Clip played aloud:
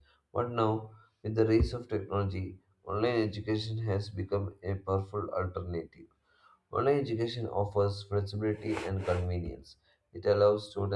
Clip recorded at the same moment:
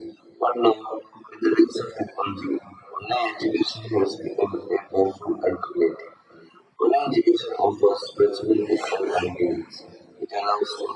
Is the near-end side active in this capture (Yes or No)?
No